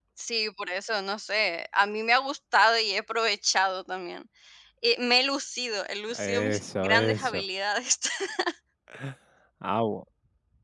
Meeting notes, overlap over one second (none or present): present